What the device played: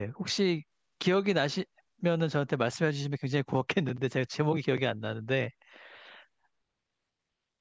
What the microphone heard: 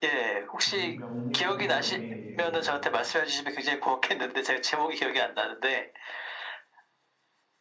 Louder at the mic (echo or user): echo